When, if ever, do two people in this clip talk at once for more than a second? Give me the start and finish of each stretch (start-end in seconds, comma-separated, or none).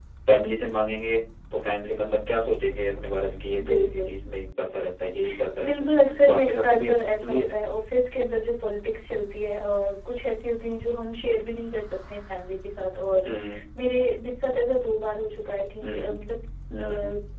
6.2-7.5